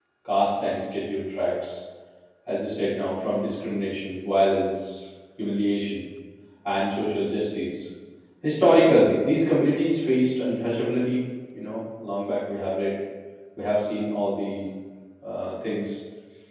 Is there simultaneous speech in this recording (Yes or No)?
No